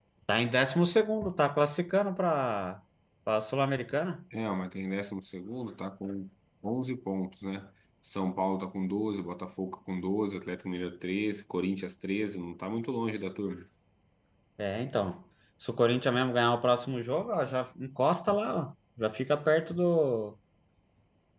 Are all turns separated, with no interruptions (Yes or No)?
Yes